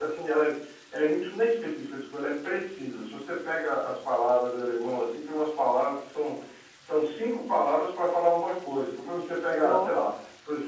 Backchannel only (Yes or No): Yes